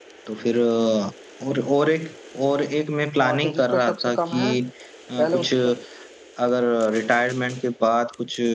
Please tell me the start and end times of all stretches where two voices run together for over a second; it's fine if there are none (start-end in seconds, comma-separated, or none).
3.2-4.5